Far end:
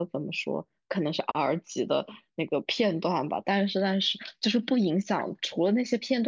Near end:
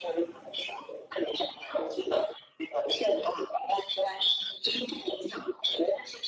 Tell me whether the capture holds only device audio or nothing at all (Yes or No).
Yes